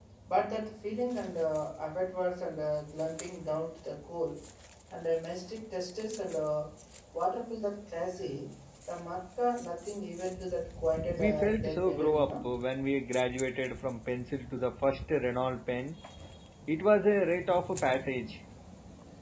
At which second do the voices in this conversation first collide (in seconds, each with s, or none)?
11.2 s